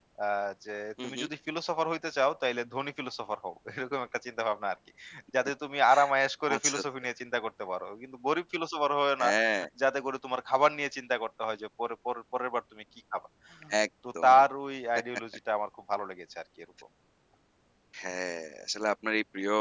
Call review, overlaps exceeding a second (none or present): none